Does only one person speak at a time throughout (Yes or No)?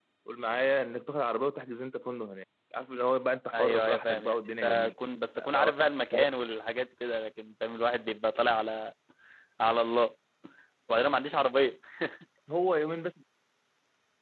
No